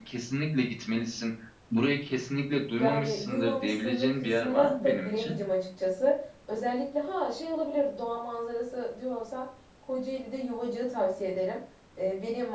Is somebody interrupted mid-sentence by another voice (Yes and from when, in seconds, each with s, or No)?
Yes, from 2.8 s